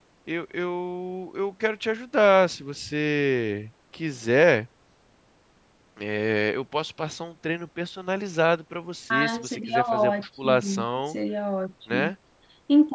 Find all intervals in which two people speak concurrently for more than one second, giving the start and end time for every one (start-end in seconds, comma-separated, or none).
9.1-11.2